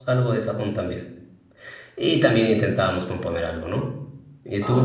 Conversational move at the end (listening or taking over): taking over